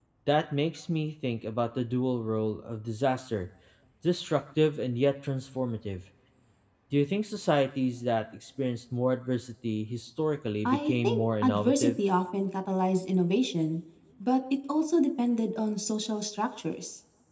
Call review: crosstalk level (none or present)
present